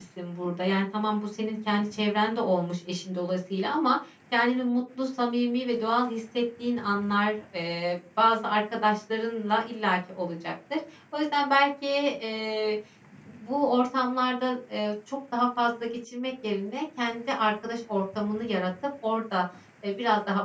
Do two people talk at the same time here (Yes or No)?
No